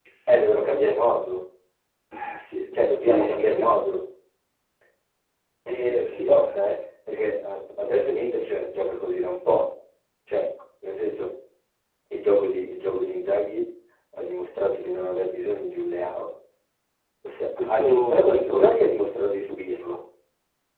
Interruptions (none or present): present